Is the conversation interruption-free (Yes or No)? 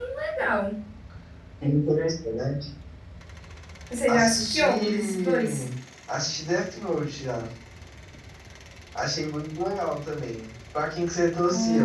No